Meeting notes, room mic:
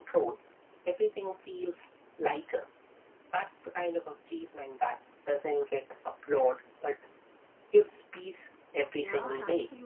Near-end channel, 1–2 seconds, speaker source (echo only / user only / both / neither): echo only